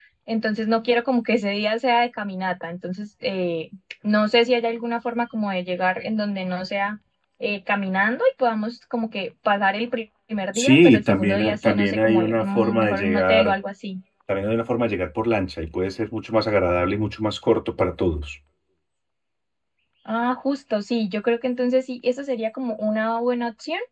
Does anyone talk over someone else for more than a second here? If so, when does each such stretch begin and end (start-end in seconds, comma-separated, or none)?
10.5-13.5